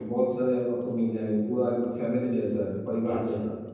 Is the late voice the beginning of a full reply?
Yes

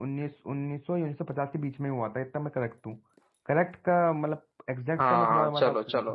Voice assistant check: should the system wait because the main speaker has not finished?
No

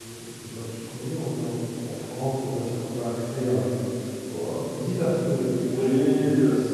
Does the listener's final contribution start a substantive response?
Yes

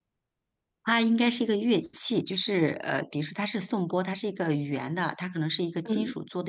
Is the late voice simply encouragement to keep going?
Yes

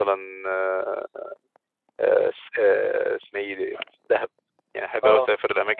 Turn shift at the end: No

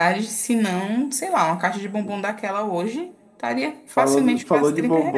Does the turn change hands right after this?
Yes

